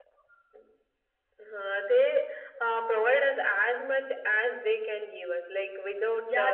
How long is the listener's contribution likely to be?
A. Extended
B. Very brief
A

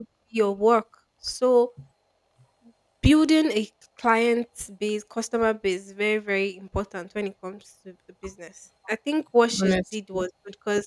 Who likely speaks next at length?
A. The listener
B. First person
B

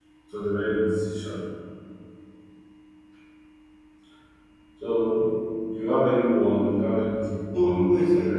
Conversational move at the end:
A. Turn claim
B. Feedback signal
A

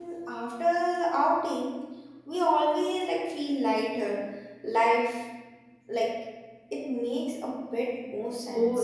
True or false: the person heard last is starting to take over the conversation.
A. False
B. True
B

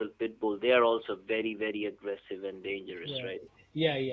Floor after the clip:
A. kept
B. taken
B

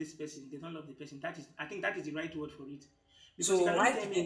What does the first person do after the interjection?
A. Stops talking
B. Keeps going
A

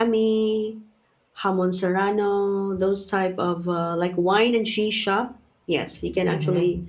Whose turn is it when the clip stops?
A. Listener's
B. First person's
B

